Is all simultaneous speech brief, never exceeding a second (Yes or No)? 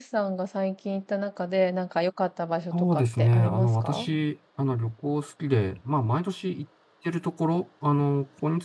No